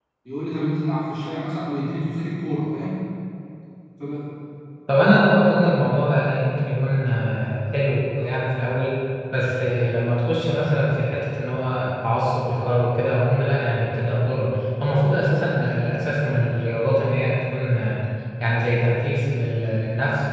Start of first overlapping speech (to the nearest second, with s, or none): none